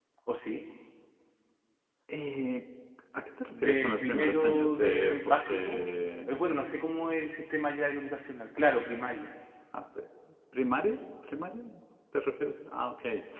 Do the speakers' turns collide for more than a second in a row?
Yes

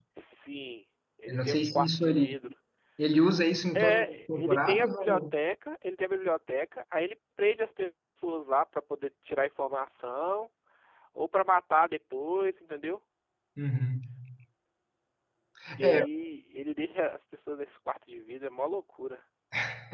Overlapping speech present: Yes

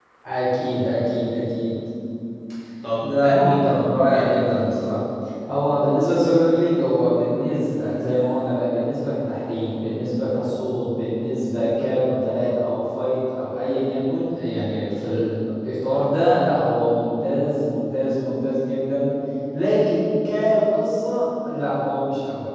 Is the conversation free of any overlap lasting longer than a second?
No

